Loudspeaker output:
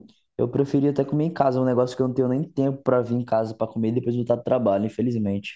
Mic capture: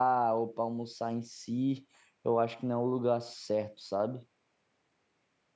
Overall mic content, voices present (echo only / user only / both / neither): user only